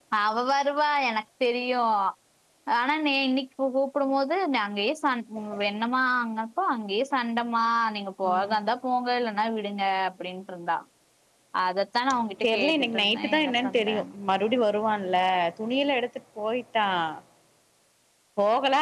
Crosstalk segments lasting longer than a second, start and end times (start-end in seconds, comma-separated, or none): 12.4-14.0